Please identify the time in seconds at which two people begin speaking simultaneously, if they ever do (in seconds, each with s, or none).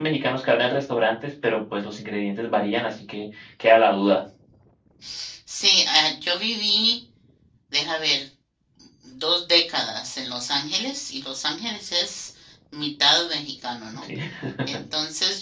none